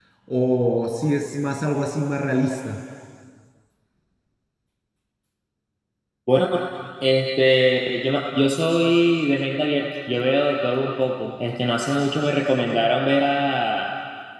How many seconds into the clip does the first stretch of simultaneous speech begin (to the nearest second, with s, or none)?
none